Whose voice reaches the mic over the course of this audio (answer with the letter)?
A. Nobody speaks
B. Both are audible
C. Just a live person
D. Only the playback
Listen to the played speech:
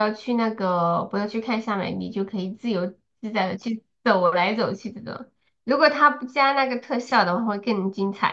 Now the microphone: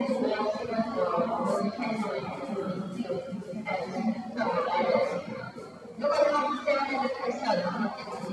B